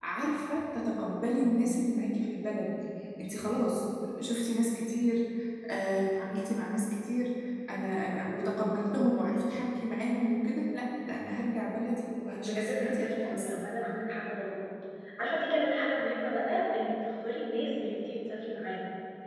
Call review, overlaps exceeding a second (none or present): present